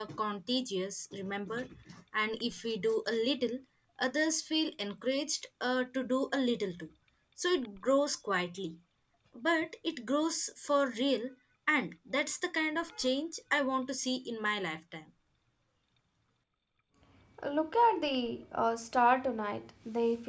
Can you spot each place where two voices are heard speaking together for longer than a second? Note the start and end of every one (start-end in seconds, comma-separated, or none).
none